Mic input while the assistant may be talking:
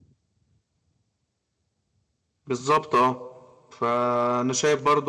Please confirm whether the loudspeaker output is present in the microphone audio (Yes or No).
No